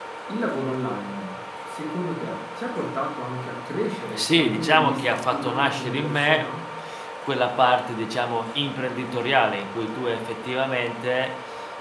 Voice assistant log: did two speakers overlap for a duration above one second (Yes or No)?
Yes